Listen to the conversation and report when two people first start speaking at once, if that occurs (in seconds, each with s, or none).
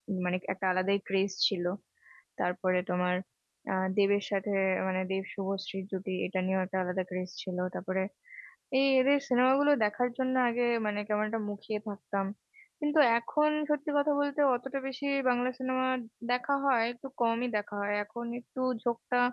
none